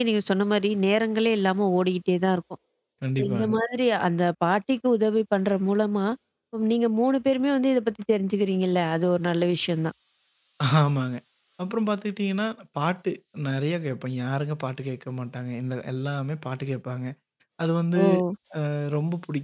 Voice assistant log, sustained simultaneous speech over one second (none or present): none